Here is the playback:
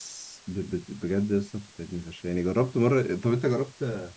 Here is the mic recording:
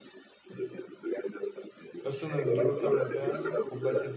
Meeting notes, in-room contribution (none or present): present